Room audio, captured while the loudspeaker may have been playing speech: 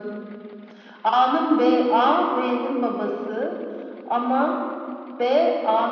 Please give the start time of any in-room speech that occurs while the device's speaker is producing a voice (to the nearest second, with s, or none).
none